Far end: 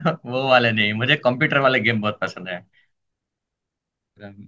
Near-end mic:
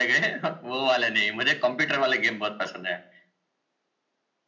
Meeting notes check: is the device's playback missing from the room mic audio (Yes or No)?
No